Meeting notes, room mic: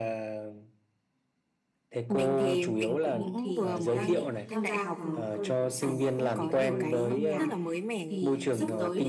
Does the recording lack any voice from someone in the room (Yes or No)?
No